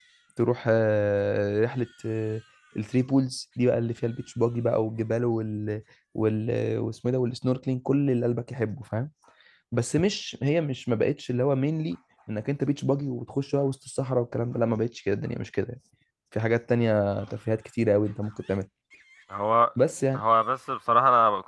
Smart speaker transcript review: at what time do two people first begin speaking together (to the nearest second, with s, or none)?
none